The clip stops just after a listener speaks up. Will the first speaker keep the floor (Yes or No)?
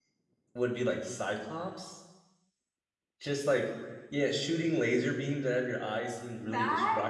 Yes